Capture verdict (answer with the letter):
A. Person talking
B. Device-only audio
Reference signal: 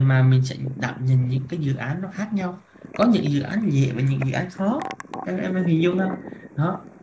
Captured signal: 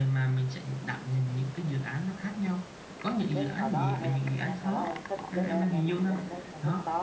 A